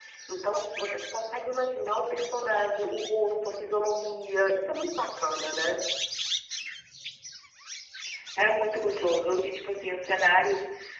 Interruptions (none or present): none